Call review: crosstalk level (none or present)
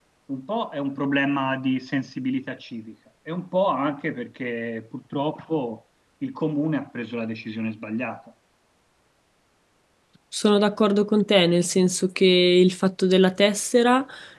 none